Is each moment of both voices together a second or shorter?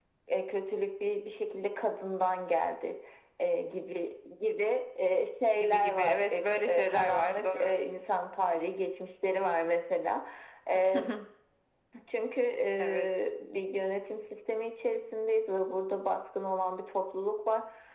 No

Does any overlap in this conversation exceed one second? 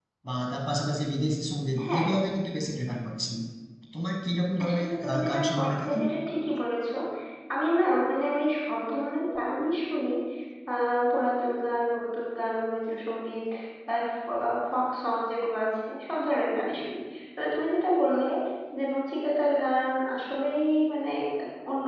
Yes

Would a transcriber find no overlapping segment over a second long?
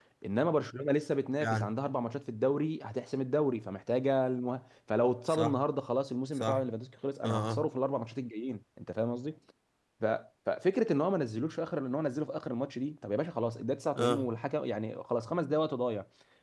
Yes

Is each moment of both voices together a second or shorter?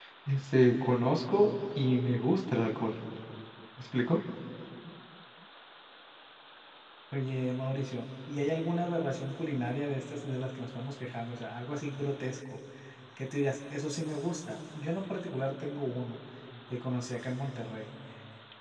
Yes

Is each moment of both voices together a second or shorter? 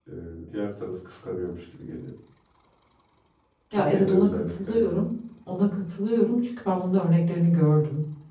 No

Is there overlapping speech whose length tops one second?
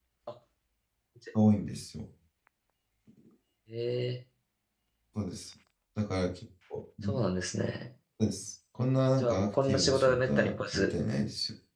Yes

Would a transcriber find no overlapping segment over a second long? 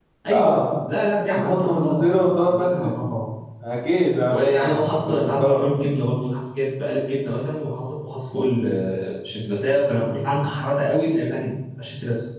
No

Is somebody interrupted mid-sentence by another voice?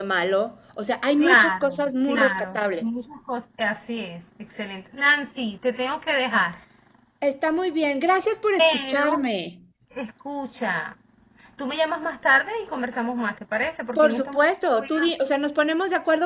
Yes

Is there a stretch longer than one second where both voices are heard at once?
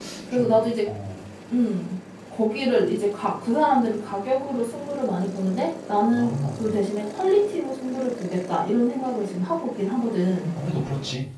No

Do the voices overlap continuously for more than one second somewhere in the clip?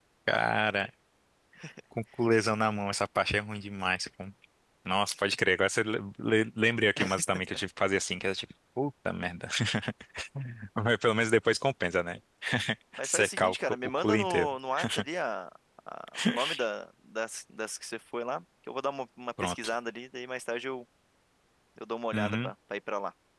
Yes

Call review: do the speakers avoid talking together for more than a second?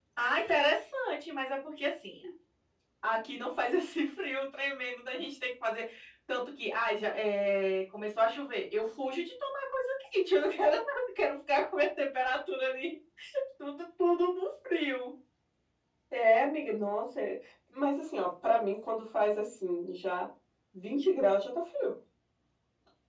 Yes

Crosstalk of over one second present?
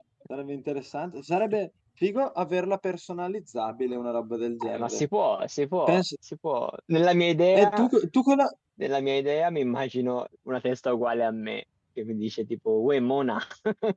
No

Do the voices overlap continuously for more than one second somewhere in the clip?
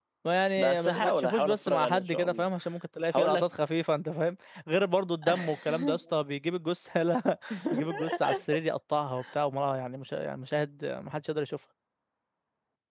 Yes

